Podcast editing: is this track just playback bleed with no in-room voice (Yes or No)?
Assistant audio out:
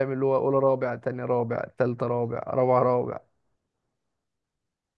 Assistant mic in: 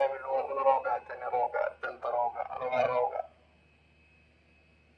Yes